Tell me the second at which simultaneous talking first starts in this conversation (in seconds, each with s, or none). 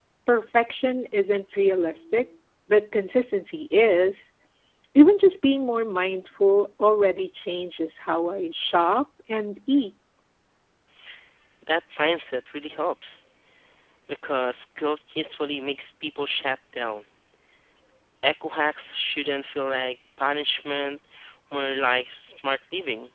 none